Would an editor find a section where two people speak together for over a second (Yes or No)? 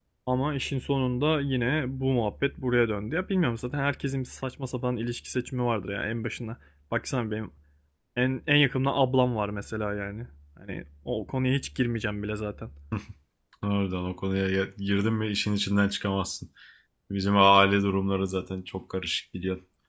No